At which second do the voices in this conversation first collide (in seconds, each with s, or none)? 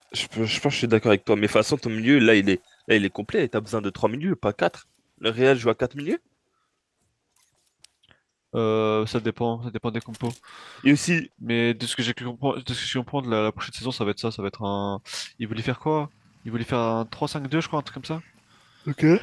none